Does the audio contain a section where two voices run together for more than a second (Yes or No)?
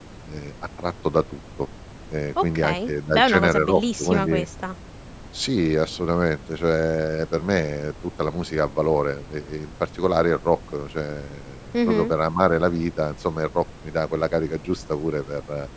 Yes